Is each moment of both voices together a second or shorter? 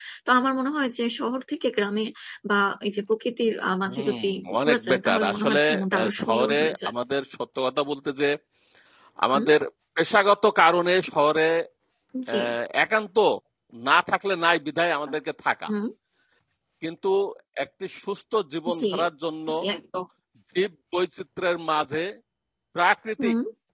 No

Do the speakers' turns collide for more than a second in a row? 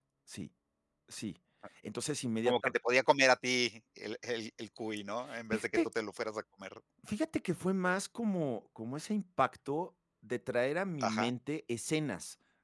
No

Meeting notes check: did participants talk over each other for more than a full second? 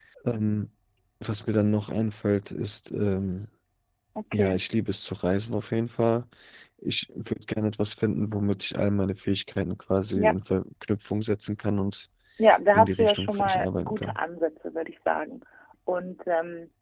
Yes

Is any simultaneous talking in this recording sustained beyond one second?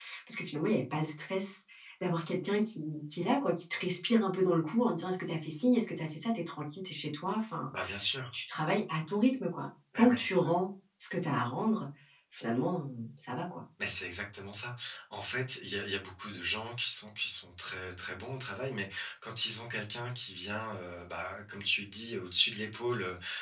No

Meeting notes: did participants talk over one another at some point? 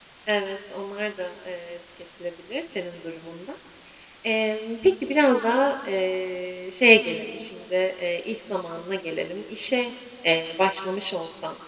No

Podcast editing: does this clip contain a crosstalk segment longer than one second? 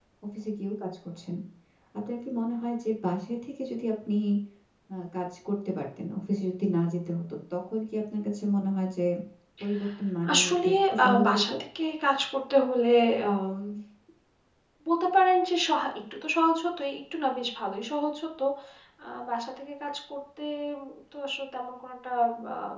Yes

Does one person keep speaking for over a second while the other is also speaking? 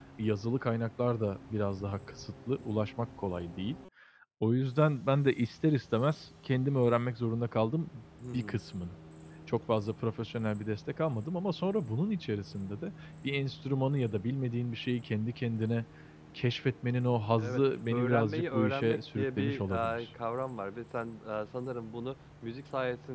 Yes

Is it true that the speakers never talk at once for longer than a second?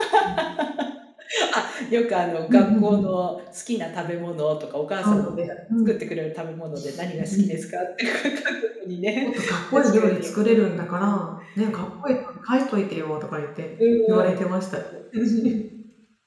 No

